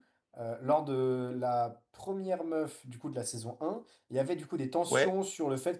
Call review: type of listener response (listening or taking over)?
listening